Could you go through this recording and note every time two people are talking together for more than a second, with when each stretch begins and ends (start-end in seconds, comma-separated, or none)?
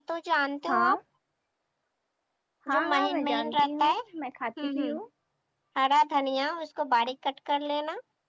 2.7-4.0